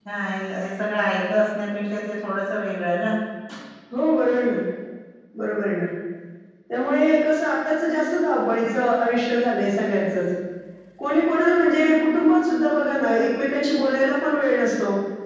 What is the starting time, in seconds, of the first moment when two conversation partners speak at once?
none

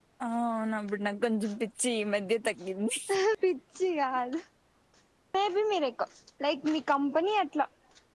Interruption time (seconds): none

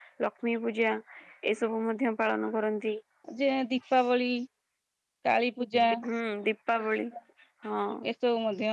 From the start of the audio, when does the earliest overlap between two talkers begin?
none

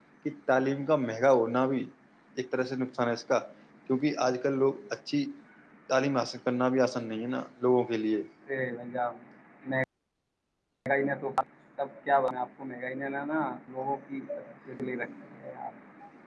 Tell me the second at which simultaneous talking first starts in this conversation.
none

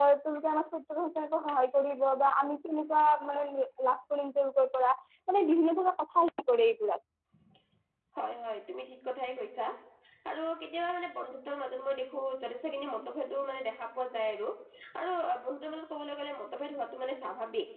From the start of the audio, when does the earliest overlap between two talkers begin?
none

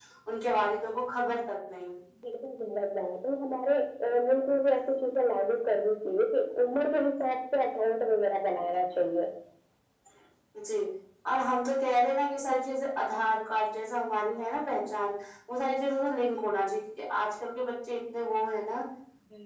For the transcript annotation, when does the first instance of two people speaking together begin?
none

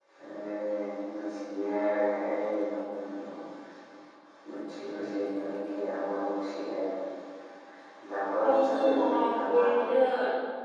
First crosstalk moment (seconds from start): 8.4 s

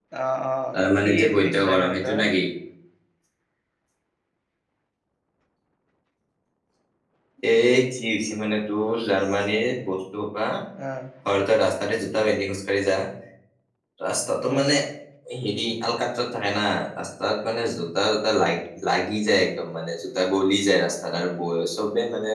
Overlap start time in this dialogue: 1.0 s

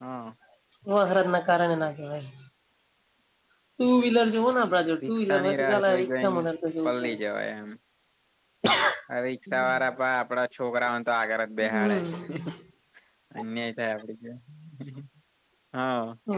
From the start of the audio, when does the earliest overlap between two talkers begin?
5.1 s

